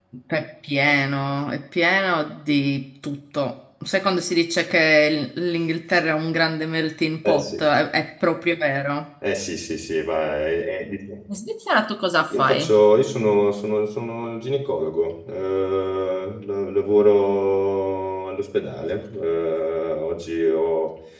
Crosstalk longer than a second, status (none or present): none